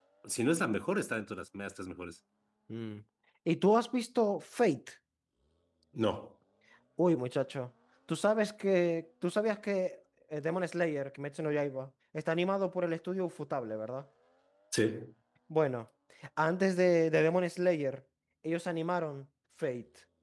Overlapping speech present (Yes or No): No